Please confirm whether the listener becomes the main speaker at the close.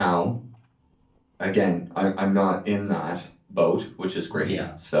No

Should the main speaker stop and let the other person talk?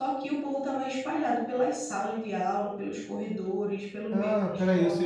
Yes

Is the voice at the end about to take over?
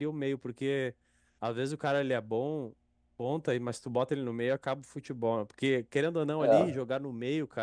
No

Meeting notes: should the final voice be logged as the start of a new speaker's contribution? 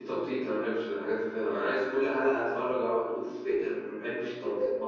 Yes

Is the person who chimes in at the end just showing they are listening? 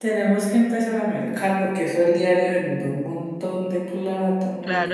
No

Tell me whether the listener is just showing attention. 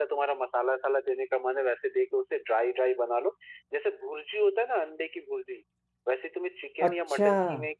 Yes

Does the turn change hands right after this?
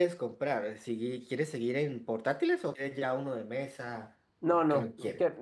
Yes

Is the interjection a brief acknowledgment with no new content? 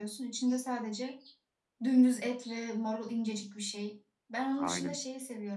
Yes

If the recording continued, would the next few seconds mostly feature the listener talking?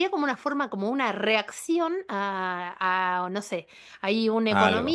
No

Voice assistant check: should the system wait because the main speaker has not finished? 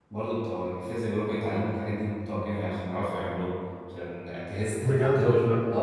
Yes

